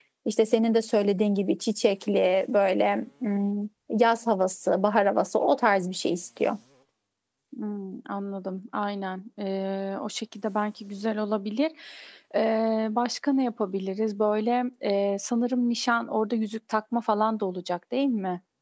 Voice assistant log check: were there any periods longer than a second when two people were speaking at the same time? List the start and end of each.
none

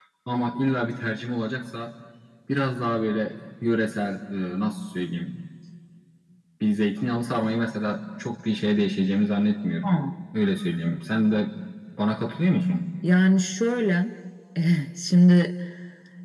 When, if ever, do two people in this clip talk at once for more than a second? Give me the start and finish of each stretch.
none

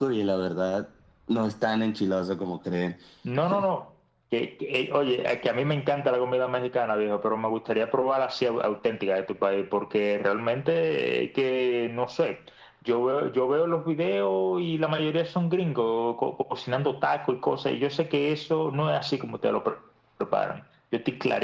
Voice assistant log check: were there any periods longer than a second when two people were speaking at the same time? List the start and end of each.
none

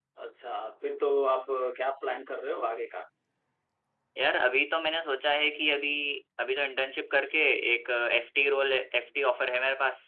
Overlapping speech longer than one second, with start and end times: none

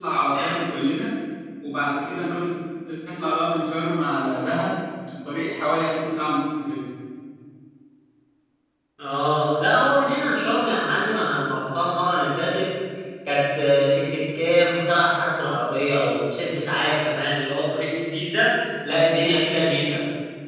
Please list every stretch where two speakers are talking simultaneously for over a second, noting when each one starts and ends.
none

